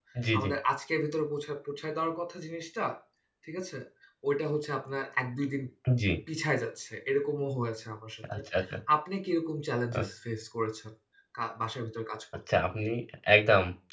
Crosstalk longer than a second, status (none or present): none